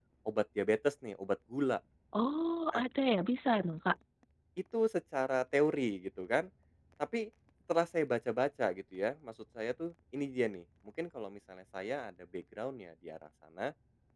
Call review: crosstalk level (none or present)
none